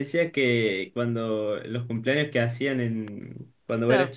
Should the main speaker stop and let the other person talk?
No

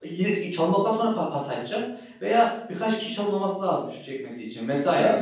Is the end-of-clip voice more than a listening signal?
No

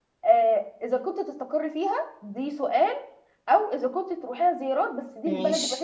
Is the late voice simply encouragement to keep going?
Yes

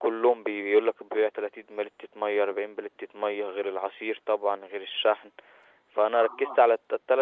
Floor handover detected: No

